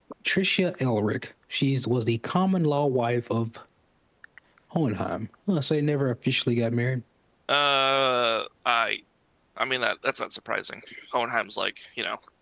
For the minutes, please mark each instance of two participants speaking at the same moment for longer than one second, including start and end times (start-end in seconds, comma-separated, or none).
none